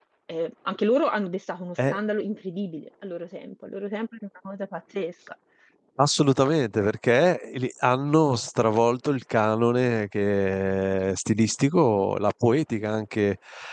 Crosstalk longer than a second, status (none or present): none